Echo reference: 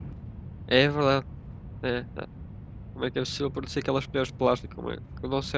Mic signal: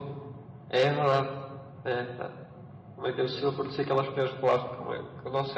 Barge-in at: none

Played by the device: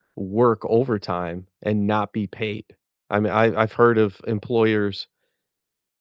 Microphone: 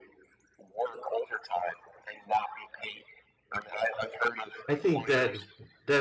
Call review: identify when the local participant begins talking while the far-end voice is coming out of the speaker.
4.7 s

